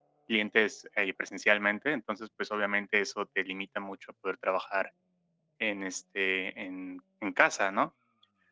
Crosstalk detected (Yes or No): No